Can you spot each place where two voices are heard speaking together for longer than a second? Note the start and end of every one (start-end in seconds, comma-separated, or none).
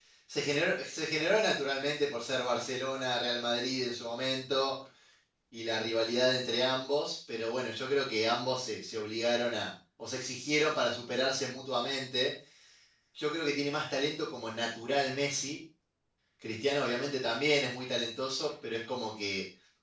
none